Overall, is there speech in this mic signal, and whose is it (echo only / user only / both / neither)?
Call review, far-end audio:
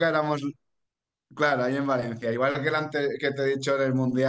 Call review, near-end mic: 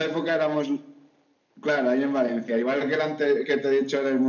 echo only